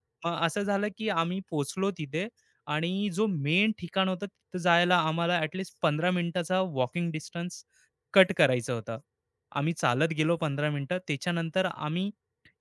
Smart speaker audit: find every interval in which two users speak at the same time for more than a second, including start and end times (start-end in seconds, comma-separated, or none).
none